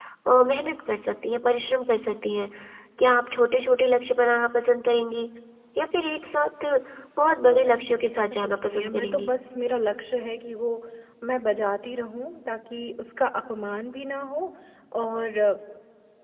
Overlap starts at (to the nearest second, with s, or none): 7 s